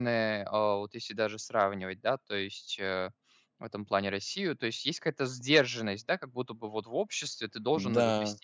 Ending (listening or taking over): listening